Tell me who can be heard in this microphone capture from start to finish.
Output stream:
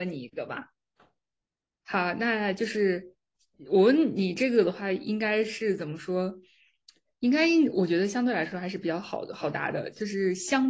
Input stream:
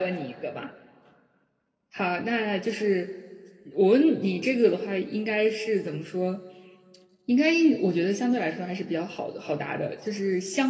echo only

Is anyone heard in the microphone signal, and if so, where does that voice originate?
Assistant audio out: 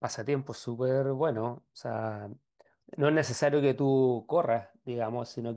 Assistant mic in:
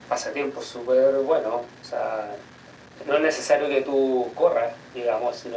echo only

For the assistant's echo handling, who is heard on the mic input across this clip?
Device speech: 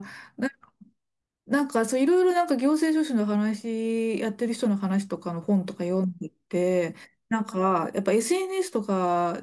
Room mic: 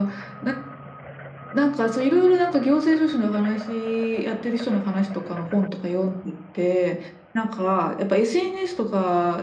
echo only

